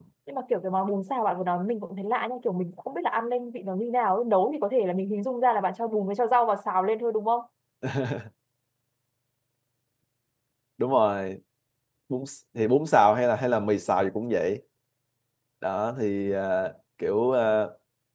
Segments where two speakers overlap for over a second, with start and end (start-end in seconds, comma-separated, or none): none